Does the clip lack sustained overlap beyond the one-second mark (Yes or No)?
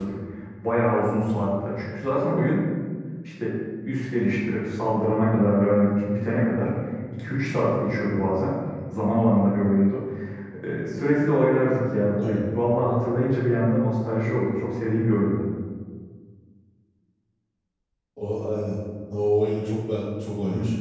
Yes